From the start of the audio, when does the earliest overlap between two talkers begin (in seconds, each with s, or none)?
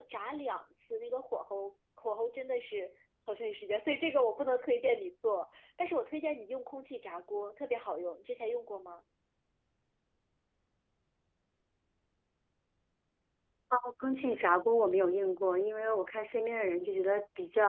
none